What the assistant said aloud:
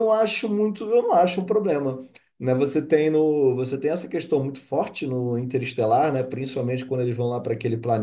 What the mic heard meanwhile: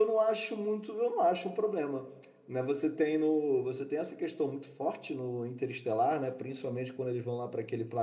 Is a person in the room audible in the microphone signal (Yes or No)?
No